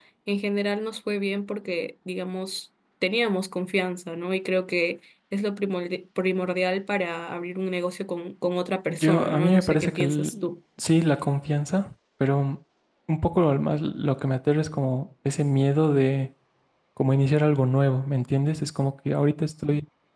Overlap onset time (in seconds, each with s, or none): 8.9 s